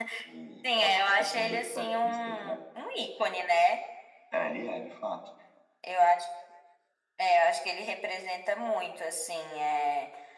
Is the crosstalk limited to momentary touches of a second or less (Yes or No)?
No